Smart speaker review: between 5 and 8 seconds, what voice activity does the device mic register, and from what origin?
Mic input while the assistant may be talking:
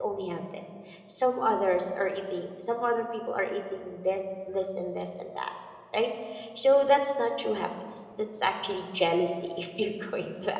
user only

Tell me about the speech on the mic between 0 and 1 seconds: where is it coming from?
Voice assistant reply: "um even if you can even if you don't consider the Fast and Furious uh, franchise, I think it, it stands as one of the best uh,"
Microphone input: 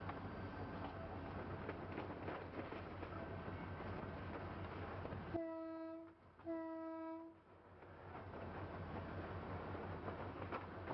neither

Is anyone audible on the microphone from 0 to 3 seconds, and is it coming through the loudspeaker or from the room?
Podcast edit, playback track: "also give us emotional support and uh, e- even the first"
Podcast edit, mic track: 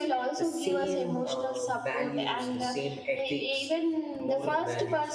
both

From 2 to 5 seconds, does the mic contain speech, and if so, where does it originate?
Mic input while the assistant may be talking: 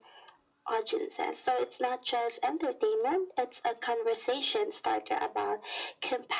echo only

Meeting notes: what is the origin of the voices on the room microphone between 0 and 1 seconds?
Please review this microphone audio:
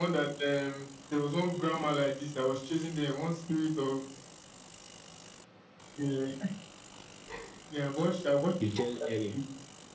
echo only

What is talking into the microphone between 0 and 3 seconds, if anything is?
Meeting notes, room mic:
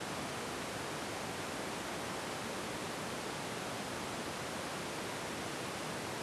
neither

